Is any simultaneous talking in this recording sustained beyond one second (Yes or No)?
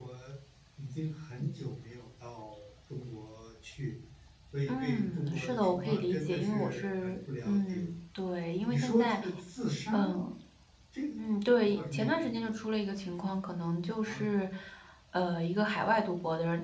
Yes